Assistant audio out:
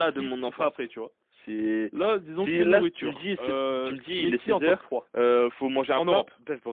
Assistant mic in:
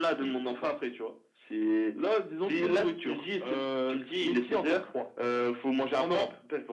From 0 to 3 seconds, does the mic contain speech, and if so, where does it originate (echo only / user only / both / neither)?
echo only